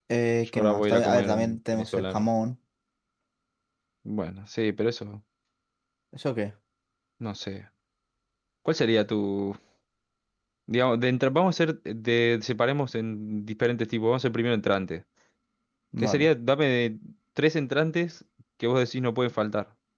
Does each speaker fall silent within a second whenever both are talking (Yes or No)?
No